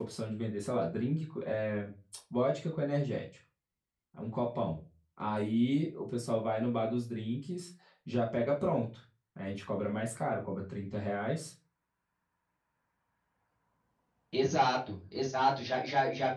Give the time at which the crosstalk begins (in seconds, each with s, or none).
none